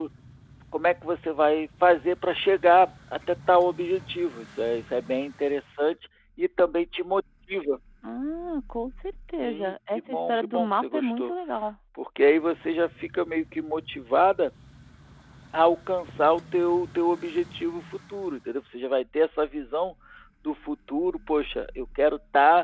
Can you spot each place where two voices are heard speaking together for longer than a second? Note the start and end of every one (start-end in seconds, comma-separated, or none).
9.4-11.3